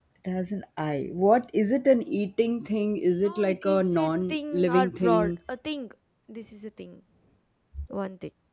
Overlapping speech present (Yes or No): Yes